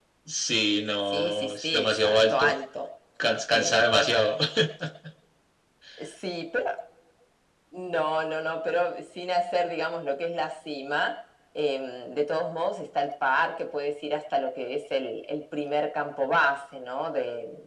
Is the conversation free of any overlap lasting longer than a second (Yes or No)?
No